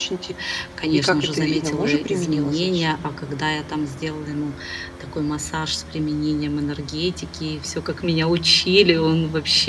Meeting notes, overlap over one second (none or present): present